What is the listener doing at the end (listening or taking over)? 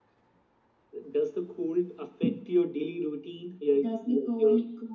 taking over